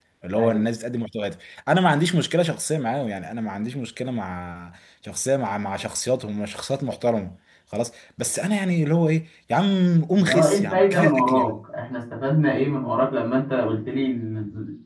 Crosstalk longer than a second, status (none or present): present